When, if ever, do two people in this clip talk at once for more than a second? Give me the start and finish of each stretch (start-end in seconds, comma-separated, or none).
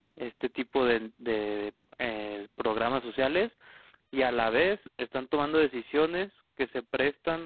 none